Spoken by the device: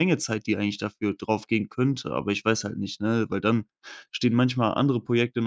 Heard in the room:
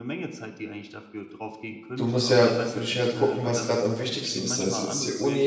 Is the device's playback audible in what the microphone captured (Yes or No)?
Yes